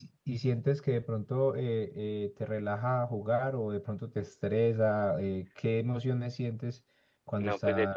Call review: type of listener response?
taking over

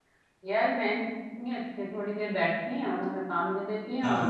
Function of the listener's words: listening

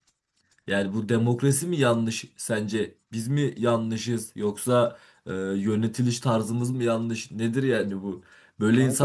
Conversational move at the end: listening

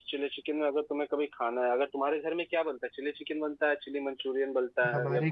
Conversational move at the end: taking over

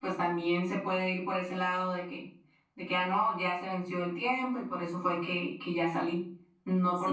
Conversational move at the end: taking over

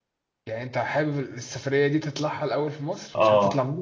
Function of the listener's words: taking over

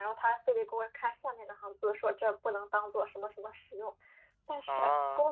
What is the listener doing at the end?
listening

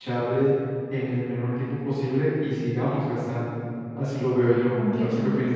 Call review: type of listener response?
taking over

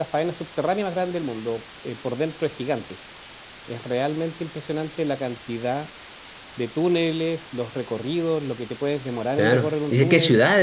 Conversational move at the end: taking over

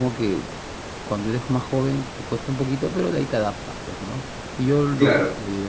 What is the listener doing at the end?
listening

